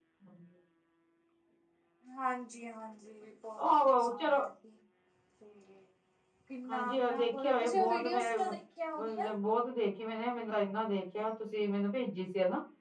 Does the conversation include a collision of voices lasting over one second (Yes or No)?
Yes